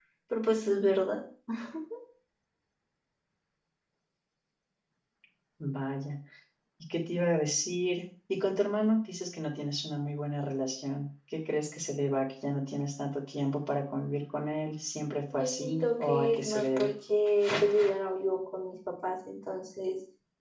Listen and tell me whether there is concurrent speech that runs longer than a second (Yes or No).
Yes